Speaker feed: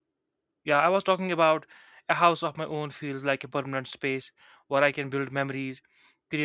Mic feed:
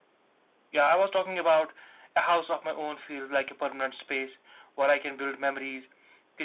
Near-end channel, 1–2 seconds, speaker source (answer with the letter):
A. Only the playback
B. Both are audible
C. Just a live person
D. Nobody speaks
A